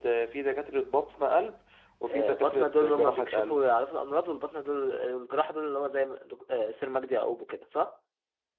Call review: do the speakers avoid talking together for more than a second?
No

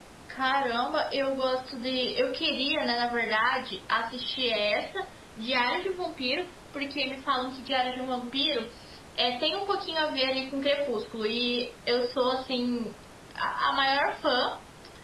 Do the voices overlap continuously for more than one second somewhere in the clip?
No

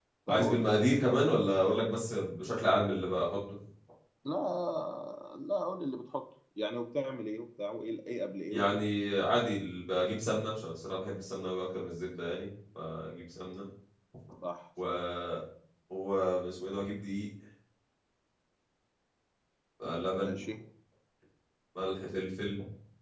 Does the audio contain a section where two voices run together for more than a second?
No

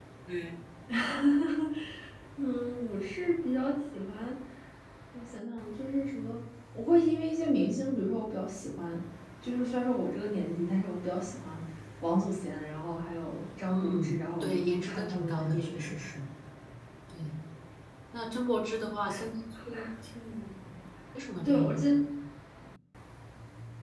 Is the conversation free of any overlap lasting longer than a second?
No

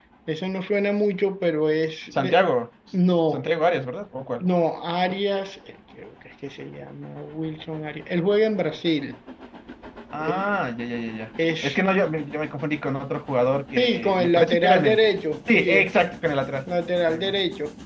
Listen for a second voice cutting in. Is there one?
Yes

